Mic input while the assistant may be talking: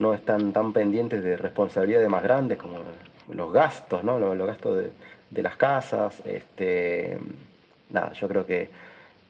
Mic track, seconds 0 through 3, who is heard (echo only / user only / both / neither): echo only